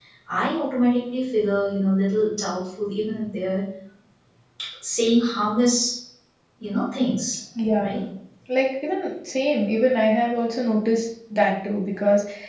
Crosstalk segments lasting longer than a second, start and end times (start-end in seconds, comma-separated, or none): none